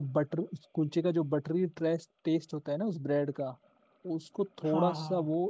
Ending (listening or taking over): listening